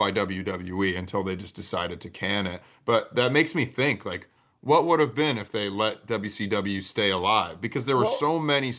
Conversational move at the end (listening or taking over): listening